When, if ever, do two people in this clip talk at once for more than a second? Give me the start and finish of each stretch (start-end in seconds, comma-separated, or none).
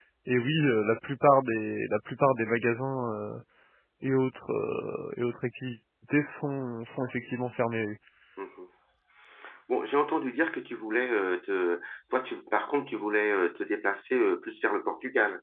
none